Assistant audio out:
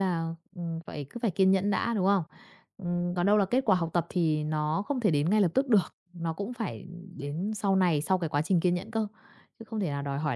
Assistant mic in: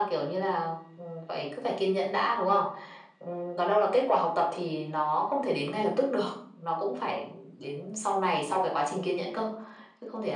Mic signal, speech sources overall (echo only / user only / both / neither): echo only